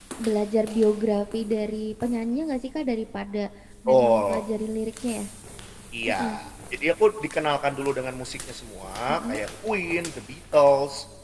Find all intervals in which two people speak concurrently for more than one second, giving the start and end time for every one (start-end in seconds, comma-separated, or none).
none